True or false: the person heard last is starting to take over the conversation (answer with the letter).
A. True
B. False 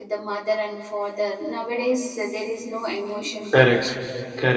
A